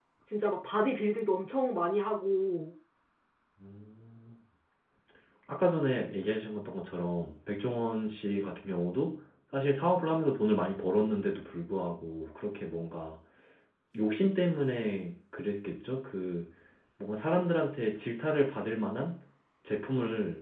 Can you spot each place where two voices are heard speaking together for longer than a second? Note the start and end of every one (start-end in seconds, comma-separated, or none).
none